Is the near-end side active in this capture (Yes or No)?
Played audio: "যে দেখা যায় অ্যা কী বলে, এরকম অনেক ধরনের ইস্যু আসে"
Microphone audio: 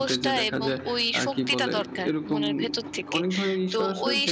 Yes